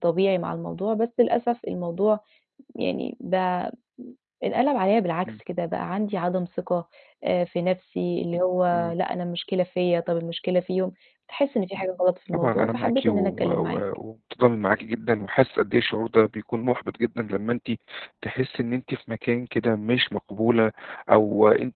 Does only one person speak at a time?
No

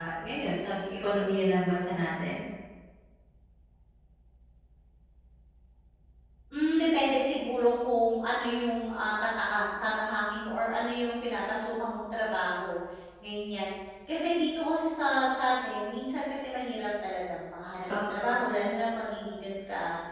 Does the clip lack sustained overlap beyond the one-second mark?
Yes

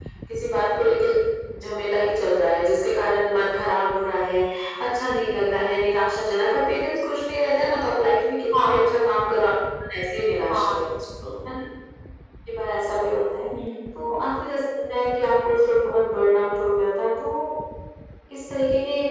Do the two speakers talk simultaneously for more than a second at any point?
No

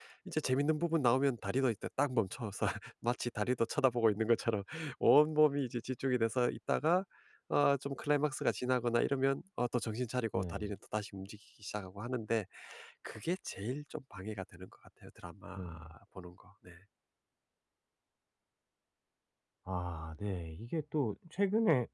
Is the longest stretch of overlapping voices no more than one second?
Yes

